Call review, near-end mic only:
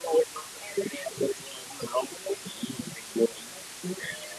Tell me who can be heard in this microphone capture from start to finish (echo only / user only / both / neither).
echo only